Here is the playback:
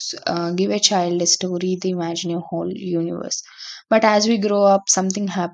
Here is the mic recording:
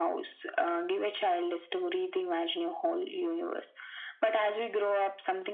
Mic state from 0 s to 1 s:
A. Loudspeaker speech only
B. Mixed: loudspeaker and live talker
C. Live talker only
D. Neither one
A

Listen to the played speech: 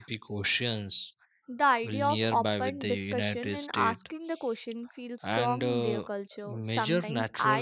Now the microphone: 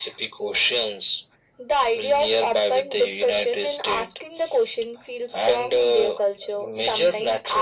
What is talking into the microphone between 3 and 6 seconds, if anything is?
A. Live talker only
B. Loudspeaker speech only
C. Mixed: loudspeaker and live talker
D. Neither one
B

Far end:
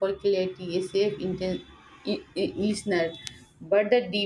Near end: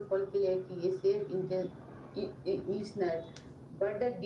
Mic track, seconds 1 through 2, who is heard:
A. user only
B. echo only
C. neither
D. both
B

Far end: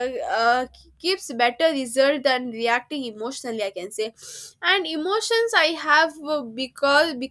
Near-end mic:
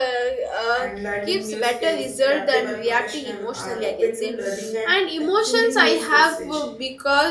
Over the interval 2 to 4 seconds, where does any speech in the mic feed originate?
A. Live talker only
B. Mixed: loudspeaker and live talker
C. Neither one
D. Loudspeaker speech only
B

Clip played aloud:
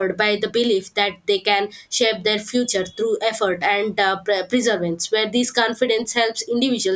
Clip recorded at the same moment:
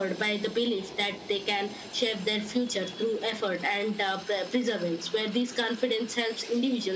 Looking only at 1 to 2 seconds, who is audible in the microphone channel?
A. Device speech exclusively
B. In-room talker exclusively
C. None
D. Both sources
A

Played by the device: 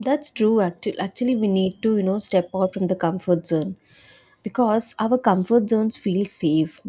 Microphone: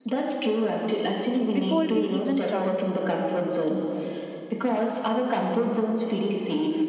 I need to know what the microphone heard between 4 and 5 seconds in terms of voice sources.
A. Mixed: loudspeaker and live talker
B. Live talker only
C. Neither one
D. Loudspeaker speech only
D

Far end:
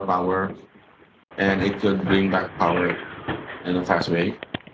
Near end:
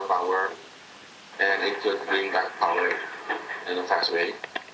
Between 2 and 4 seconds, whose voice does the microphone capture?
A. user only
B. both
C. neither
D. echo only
D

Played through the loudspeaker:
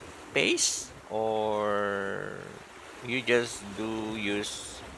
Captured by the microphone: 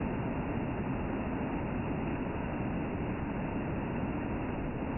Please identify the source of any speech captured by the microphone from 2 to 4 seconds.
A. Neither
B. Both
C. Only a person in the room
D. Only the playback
A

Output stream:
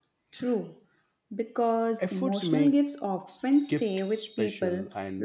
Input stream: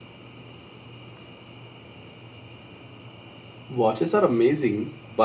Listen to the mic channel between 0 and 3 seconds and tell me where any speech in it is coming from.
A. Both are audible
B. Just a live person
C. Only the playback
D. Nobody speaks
D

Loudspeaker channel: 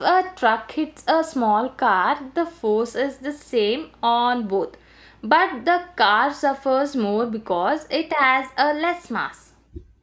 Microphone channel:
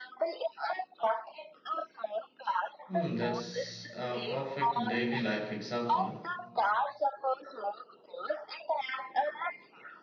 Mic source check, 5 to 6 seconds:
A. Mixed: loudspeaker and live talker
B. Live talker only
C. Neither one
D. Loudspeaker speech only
A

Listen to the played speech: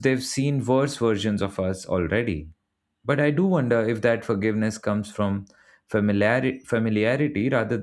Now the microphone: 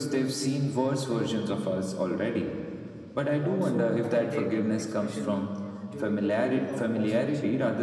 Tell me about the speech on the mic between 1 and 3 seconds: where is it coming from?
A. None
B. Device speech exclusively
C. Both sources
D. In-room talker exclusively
B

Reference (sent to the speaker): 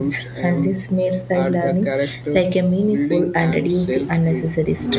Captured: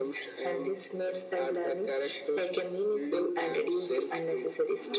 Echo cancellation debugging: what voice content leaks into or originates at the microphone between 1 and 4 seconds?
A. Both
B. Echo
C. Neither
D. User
B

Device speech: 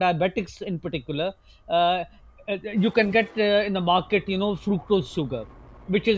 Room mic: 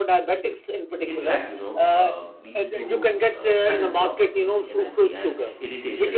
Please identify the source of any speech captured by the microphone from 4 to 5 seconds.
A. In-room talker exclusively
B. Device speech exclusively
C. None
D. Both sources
D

